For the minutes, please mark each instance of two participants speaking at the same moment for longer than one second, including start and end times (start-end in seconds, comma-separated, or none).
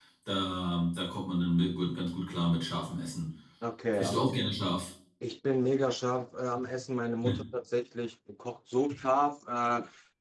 none